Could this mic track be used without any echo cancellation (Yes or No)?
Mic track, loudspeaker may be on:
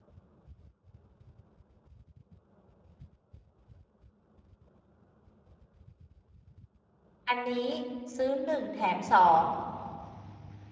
Yes